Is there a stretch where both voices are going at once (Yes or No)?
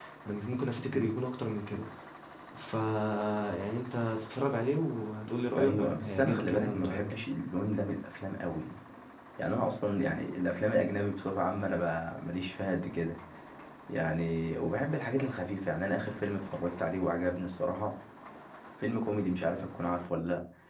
Yes